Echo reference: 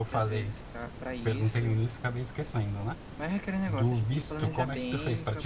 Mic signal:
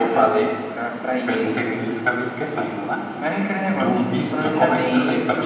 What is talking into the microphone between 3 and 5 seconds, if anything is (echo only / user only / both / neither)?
echo only